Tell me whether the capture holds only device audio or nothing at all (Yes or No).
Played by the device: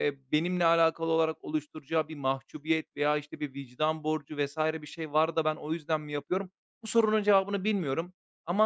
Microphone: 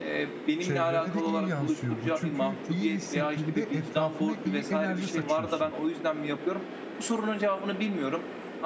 No